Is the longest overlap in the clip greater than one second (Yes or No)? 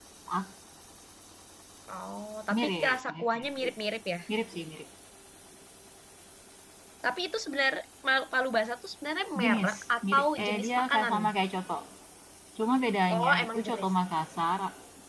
Yes